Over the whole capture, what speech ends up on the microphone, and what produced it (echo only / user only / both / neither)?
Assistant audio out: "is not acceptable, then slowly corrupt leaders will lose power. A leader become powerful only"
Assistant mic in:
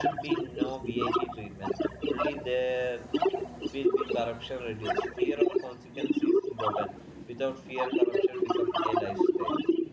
both